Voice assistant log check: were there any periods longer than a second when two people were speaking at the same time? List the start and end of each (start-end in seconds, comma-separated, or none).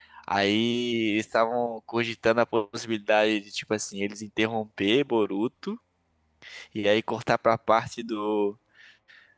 none